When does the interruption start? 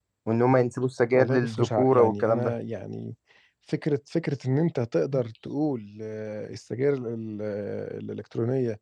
1.1 s

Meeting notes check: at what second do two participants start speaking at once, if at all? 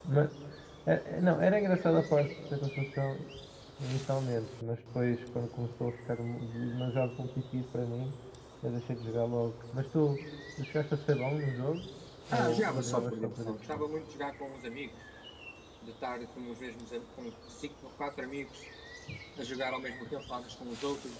12.3 s

